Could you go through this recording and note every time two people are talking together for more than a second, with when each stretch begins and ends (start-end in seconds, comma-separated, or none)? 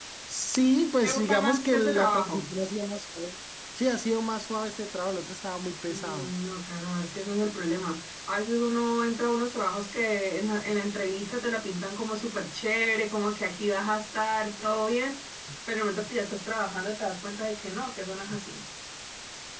1.0-2.5